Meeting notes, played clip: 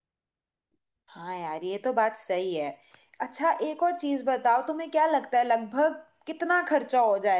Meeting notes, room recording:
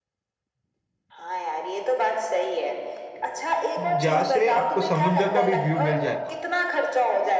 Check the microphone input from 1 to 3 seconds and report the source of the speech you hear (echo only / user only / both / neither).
echo only